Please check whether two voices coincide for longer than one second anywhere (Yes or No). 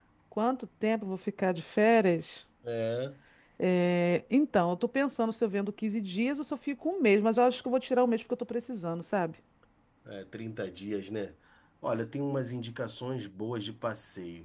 No